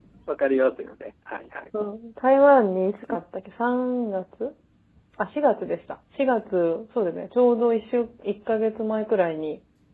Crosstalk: none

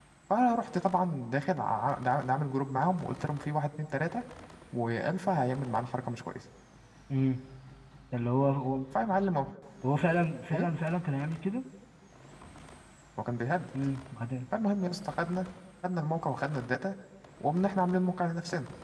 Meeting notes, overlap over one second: none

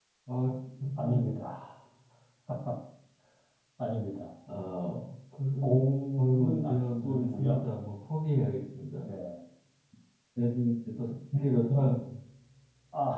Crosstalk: present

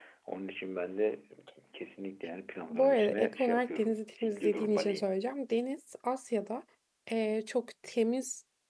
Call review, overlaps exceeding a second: present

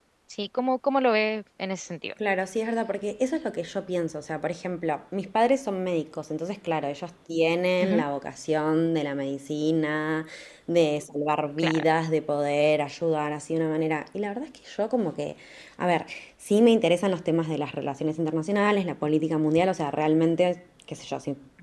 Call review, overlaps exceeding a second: none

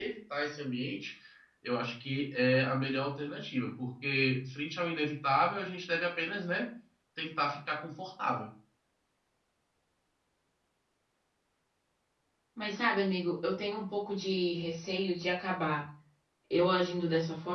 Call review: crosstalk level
none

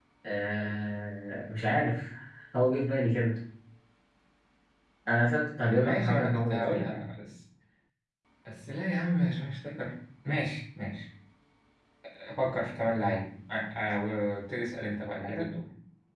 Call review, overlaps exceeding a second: present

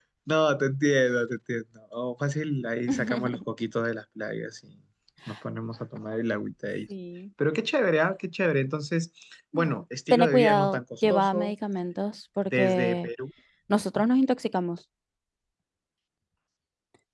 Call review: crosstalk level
present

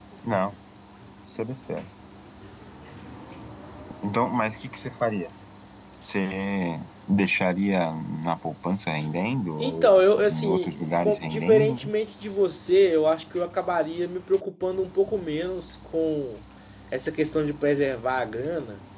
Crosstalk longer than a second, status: present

